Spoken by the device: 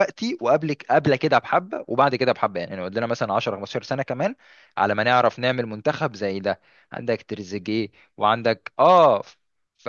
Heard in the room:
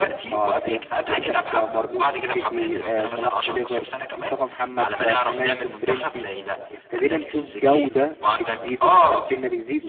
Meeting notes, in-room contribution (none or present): present